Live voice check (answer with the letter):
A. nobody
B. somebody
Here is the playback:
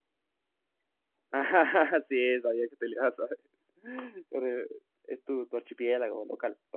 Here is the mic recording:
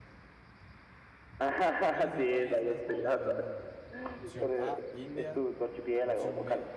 B